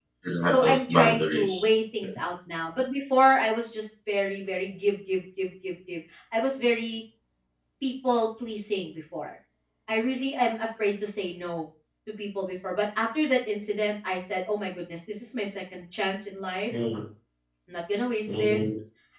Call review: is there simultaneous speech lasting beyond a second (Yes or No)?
Yes